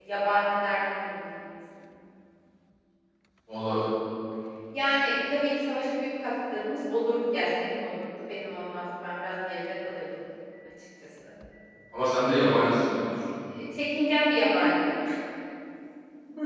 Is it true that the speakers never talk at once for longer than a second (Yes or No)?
Yes